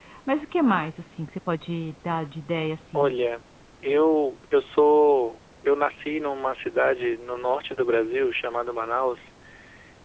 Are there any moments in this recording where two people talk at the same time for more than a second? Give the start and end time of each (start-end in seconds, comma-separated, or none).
none